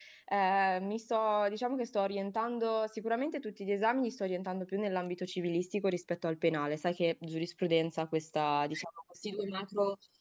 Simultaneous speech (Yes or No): No